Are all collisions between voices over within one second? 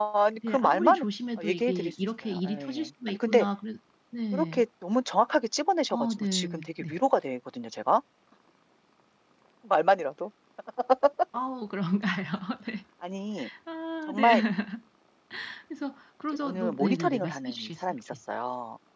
No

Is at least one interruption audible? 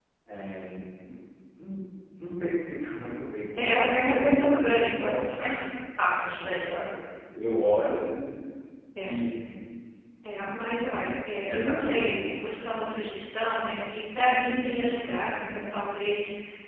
Yes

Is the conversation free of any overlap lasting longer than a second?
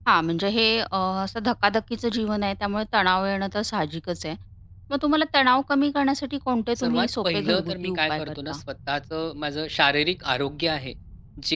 No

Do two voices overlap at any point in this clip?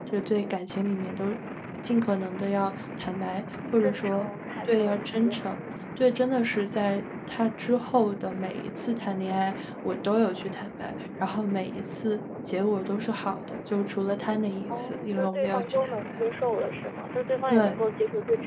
Yes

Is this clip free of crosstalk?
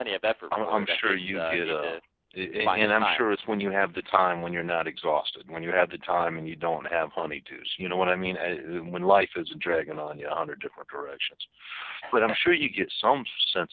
No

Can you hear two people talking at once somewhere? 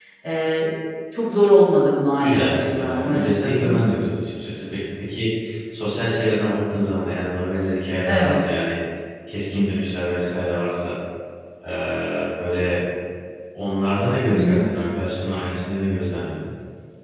Yes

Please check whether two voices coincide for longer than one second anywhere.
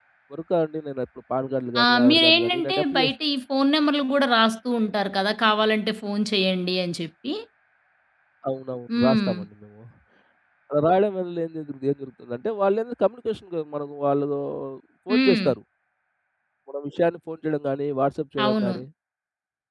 Yes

